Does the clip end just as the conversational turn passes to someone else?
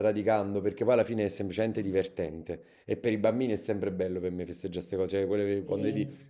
No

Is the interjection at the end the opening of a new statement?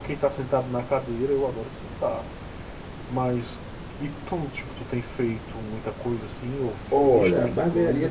Yes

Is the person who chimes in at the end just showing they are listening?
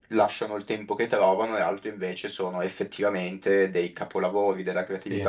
Yes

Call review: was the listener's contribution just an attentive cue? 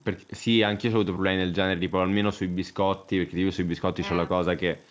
Yes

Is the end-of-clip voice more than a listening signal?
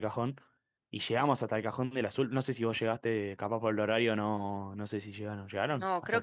Yes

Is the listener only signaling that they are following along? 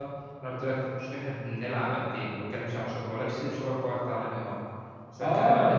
No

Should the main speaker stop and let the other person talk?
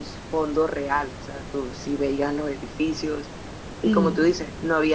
No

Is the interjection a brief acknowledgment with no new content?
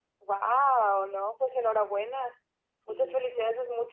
Yes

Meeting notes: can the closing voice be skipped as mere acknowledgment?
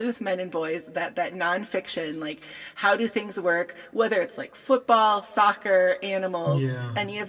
Yes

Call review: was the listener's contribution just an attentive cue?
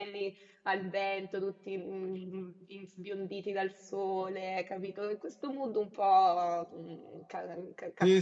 No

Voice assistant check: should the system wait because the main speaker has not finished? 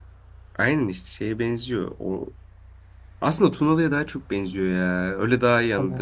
Yes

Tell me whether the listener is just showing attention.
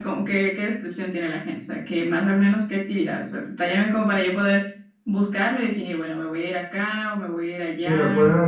No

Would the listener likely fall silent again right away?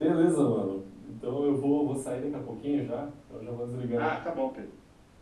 No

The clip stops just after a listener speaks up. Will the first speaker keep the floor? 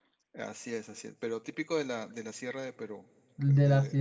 No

